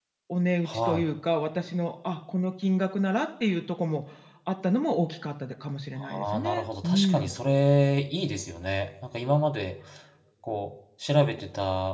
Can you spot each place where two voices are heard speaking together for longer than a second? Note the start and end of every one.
6.0-7.3

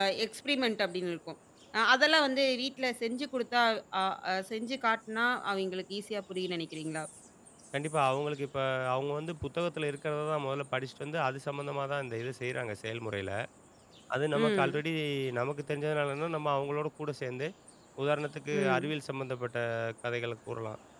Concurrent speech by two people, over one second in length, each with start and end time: none

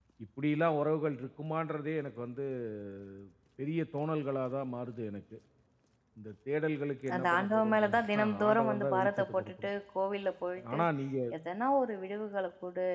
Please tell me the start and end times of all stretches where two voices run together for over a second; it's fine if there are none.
7.1-9.7

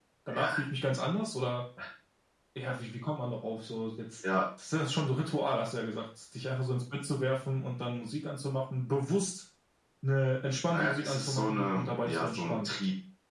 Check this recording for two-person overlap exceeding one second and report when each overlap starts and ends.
10.7-12.7

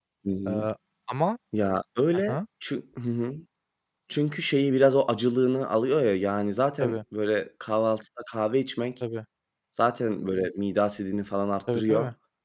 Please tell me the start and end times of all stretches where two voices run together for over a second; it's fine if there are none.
none

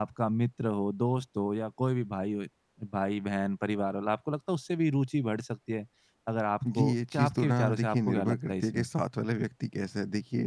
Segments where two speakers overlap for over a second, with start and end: 6.8-8.9

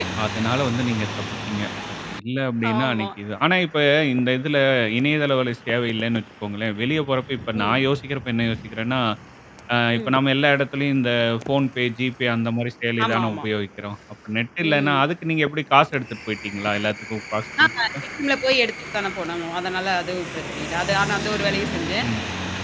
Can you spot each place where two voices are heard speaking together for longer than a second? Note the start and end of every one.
none

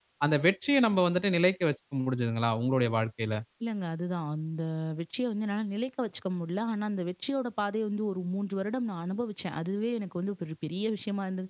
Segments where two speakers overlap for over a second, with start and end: none

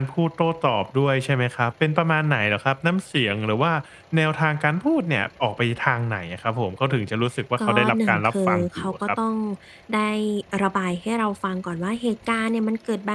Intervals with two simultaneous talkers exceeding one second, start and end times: 7.6-9.1

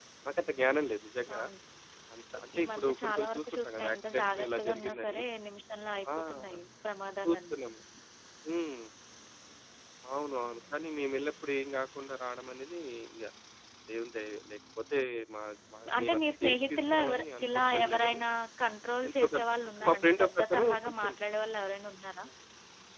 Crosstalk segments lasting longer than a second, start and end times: 2.6-5.2, 16.0-18.2, 19.1-21.1

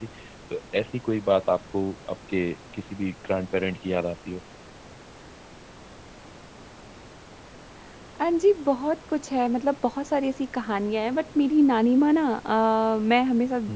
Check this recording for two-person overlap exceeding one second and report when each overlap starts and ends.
none

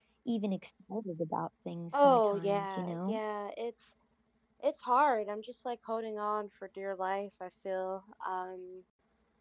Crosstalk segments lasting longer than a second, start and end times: 1.9-3.2

